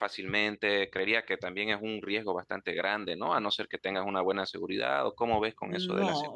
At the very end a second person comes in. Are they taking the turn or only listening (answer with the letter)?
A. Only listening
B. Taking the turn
B